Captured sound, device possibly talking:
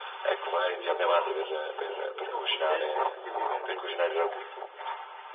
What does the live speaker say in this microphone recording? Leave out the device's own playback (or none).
Devo provarla questa cosa. E Siamo fondente con che livello di...